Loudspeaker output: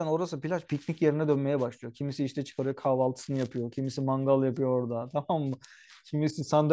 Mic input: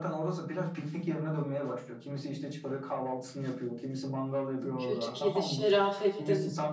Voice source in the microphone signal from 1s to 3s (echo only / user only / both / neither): echo only